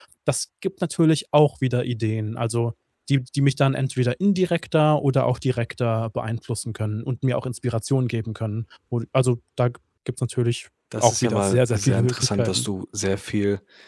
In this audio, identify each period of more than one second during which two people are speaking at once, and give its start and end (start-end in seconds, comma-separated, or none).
11.0-12.7